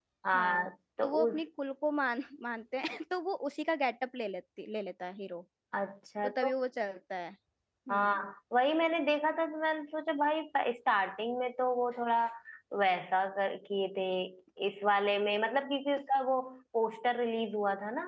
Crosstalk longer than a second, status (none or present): none